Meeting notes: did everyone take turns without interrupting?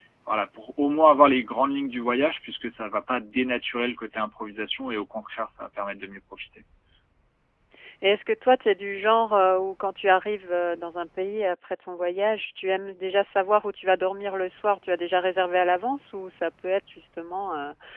Yes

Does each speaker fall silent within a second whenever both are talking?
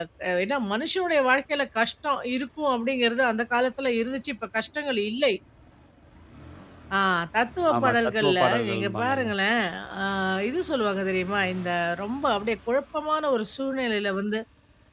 No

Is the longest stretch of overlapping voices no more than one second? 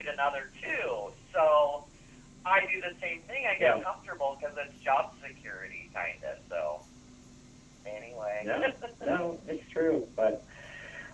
Yes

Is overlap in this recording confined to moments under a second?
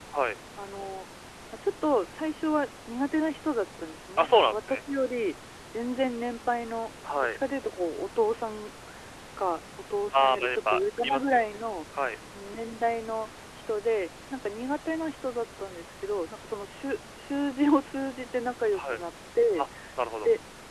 No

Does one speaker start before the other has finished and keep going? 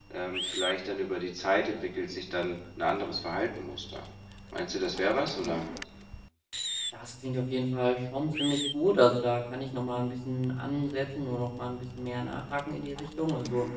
No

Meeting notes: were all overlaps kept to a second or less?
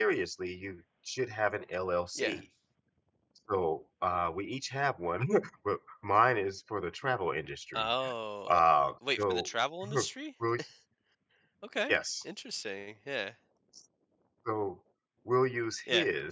Yes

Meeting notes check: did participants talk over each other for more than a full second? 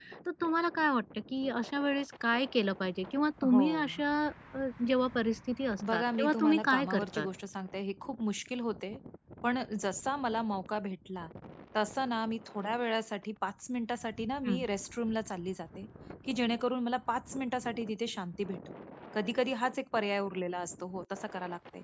Yes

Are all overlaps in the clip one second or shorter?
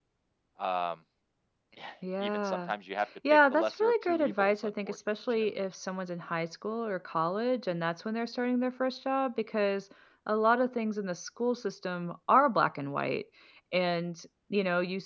No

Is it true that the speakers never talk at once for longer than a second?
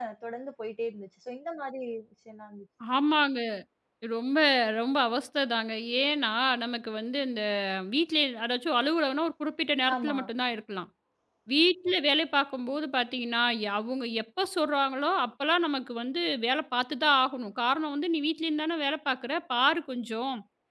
Yes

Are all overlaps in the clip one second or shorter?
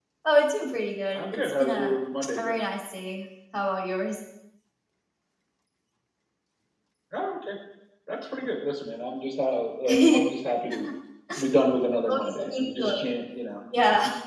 No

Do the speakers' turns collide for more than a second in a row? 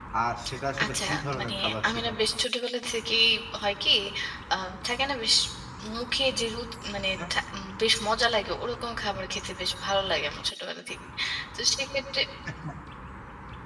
Yes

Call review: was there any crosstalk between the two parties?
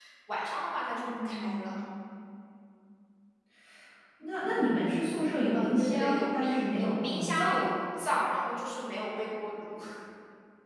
Yes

